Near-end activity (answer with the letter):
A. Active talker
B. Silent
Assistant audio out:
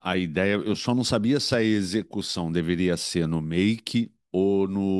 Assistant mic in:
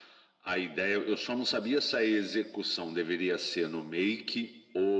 B